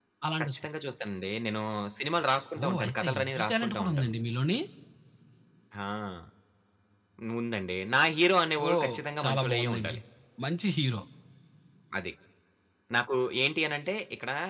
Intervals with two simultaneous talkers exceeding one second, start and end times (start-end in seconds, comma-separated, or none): 2.6-4.1, 8.6-10.0